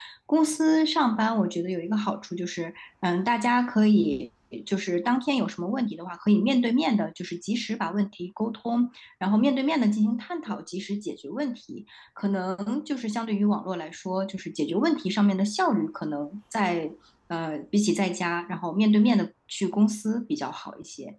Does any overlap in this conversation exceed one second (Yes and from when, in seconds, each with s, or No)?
No